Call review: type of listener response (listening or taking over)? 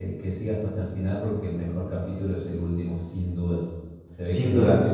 listening